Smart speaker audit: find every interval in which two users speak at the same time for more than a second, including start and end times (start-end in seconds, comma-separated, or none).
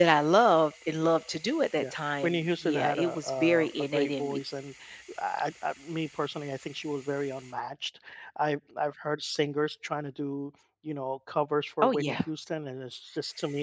1.8-4.4